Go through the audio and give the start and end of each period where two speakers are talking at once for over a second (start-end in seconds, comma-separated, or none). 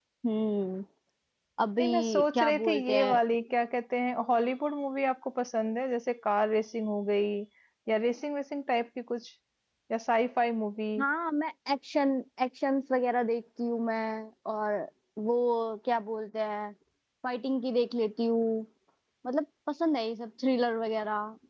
1.8-3.2